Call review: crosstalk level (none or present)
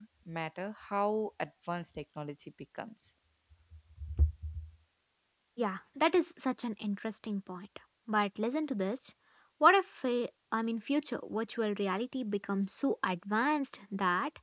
none